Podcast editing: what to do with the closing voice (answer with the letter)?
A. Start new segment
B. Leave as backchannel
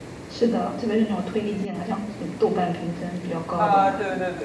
A